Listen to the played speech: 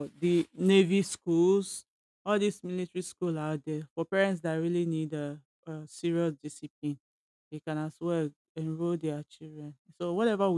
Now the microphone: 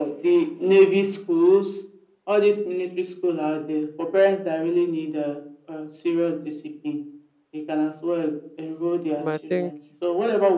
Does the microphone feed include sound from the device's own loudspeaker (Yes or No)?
Yes